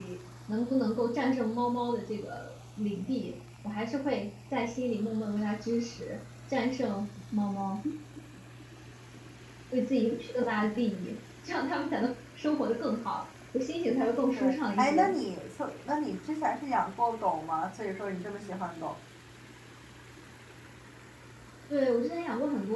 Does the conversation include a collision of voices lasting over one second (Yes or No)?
Yes